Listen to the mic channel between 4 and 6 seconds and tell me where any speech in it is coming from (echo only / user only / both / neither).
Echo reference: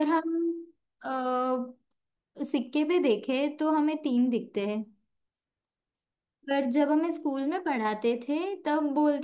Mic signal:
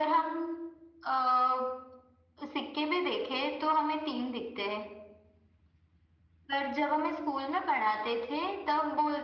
echo only